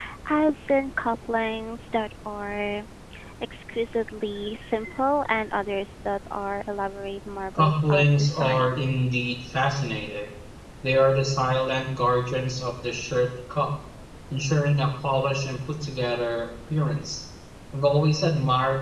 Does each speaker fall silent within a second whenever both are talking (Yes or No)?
No